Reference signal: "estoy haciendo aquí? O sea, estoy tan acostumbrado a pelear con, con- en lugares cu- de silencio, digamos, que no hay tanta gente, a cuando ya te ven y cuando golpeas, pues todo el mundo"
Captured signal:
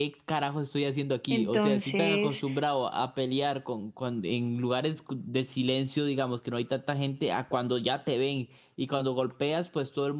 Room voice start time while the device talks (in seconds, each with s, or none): 1.3 s